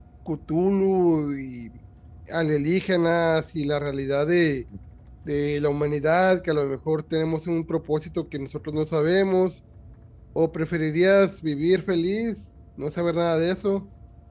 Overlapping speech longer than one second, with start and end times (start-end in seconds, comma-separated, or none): none